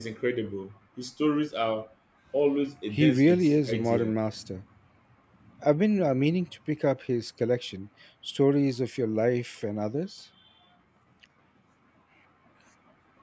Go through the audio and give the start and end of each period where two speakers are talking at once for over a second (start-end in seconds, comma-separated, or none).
2.9-4.1